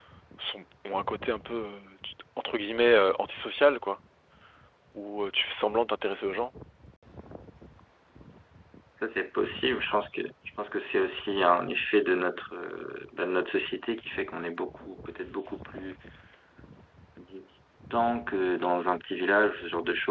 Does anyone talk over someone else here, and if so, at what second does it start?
none

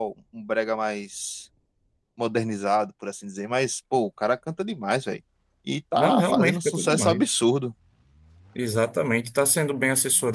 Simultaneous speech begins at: 6 s

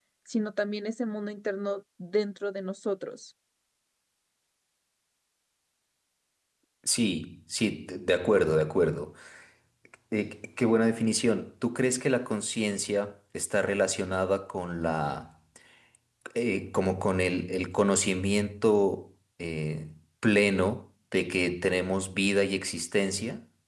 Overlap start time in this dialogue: none

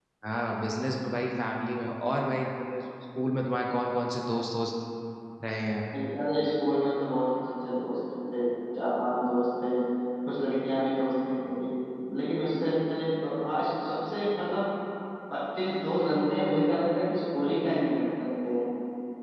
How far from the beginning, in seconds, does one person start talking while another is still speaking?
none

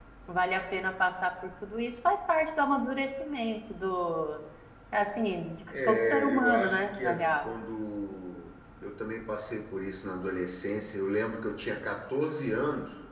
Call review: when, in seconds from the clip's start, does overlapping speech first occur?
6 s

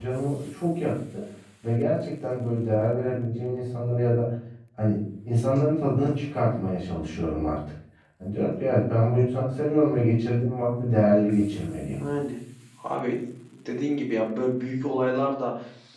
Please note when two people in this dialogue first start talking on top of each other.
none

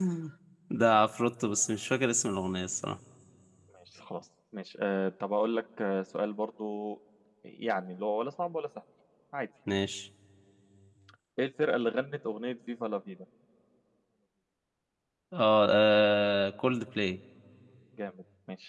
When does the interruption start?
none

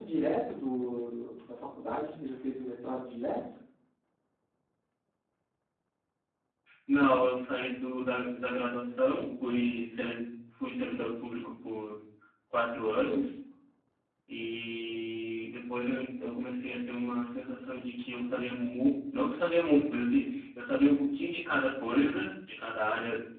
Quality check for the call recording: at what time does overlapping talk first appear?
none

